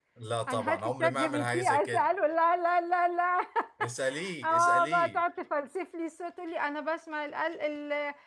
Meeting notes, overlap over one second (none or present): present